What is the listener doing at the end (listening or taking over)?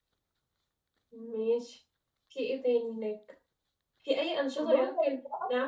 listening